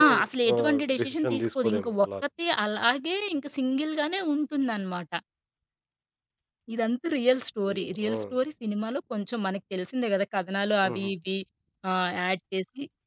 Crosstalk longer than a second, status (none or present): present